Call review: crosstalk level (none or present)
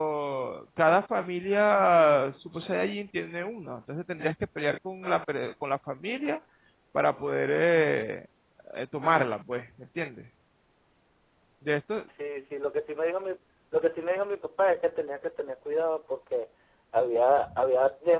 none